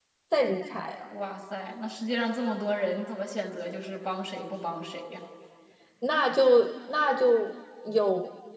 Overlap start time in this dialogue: none

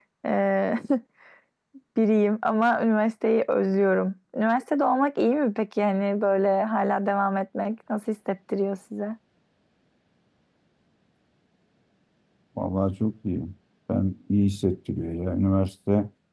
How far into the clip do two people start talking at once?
none

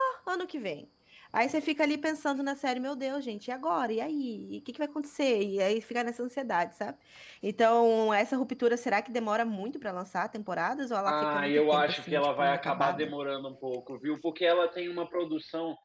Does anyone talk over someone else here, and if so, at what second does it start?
11.1 s

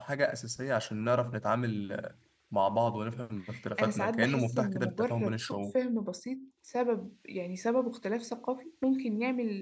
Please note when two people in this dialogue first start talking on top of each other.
3.8 s

